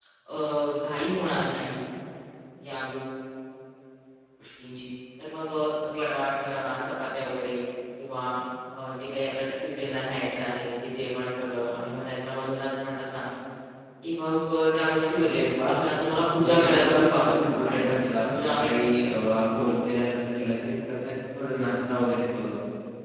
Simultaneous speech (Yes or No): Yes